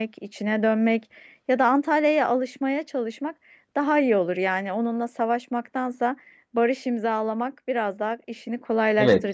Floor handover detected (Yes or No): Yes